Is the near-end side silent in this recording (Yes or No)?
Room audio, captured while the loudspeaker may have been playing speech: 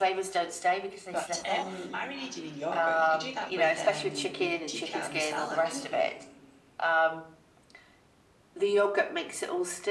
No